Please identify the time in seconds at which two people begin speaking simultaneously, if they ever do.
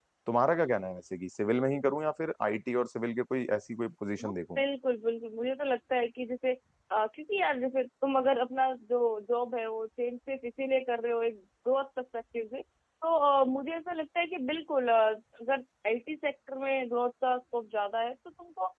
none

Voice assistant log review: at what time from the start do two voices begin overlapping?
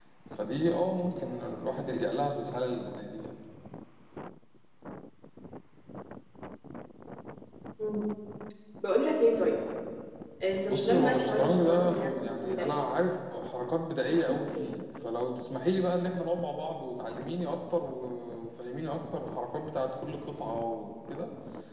10.7 s

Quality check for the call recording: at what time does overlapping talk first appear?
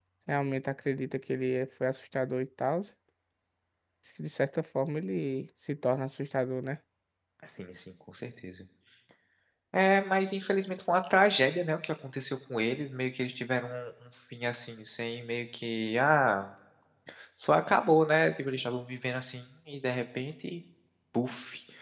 none

